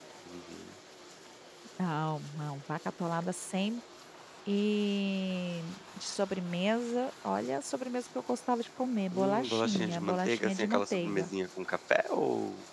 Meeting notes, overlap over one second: present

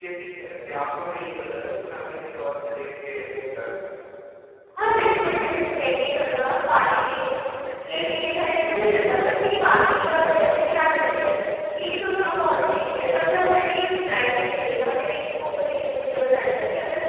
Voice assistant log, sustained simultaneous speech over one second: none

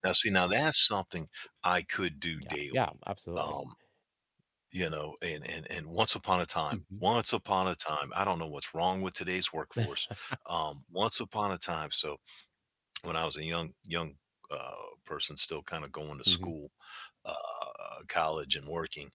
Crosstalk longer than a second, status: none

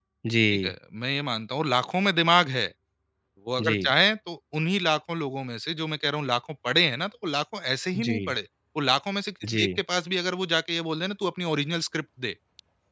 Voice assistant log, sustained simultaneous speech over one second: none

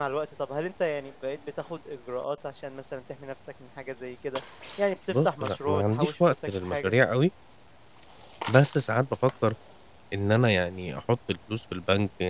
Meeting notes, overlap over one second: present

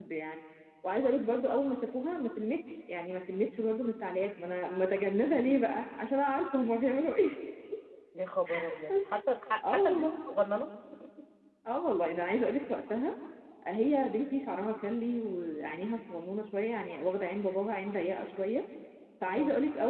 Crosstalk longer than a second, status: none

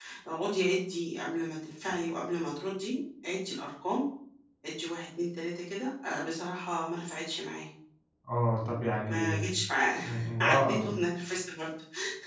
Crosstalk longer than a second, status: none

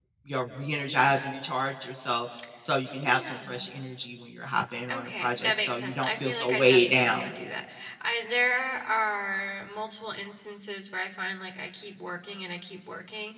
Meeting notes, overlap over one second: present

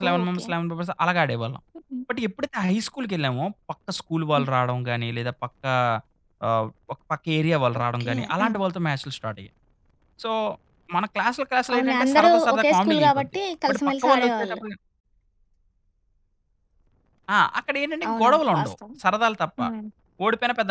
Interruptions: present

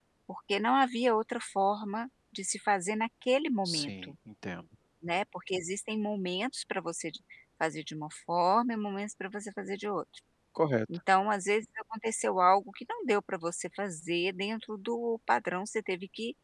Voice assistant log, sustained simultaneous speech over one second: none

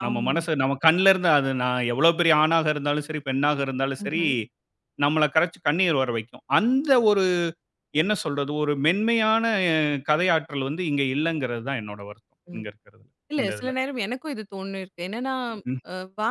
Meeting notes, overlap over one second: none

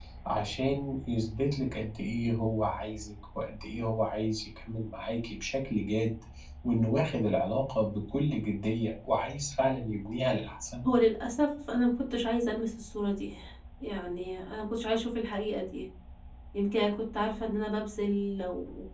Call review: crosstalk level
none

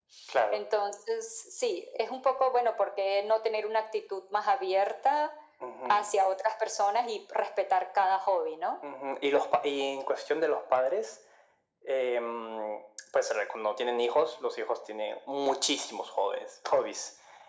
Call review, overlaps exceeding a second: none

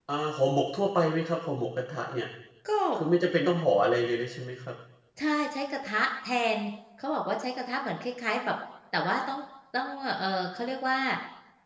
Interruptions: none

